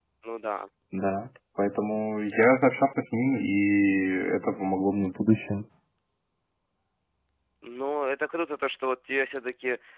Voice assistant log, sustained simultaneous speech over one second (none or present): none